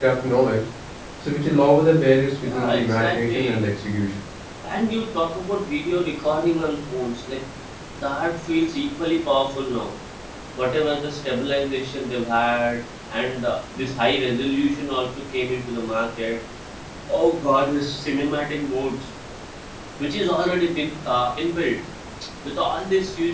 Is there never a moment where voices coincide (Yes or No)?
No